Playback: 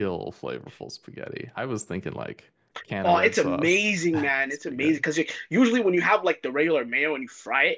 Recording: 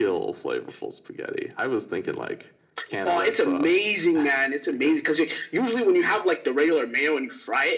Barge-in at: none

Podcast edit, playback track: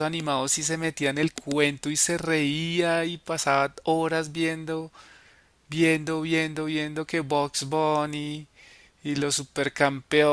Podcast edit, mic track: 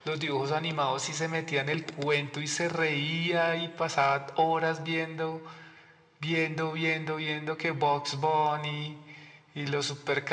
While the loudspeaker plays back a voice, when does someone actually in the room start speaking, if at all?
none

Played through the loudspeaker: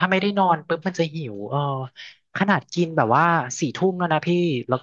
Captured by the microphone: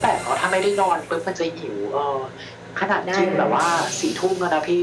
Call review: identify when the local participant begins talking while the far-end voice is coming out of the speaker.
3.1 s

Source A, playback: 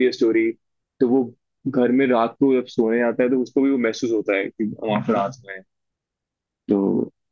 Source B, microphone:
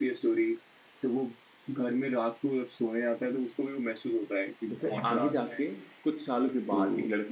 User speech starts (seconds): 4.7 s

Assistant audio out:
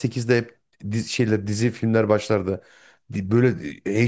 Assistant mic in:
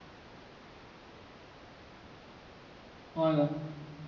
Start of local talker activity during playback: 3.1 s

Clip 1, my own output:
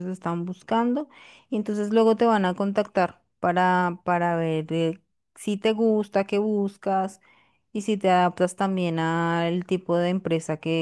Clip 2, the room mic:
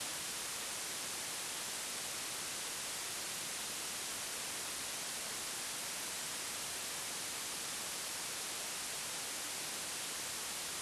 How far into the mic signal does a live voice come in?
none

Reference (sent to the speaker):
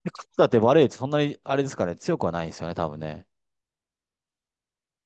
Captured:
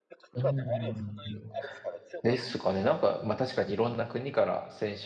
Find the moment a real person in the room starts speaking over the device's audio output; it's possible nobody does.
0.3 s

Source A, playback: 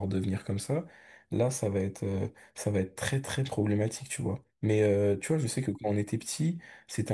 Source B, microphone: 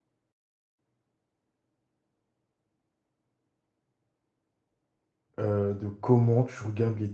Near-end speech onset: 5.4 s

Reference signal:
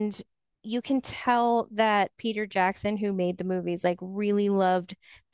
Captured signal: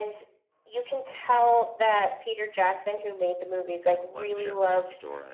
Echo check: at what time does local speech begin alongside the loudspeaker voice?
3.8 s

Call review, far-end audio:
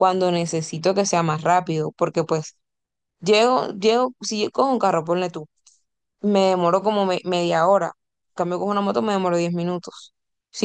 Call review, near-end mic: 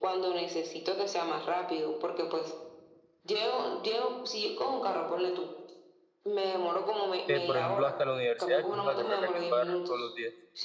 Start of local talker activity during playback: 7.3 s

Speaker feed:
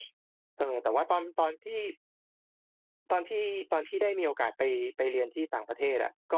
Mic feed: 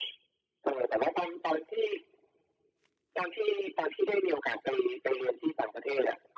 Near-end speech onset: none

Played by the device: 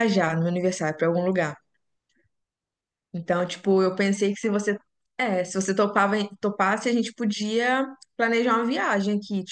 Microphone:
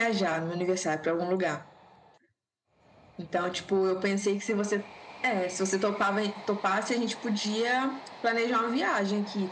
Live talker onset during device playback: none

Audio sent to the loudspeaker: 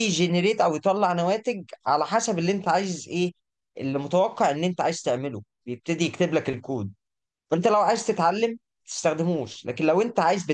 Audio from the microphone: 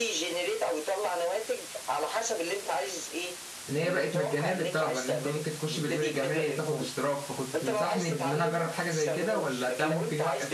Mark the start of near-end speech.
3.7 s

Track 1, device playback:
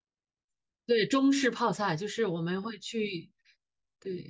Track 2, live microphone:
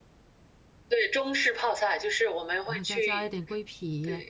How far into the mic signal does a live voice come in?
2.6 s

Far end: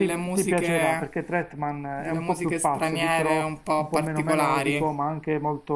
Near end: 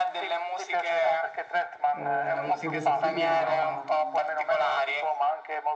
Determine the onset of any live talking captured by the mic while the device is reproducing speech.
1.9 s

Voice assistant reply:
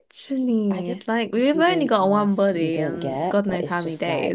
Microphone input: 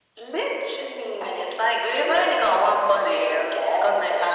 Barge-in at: none

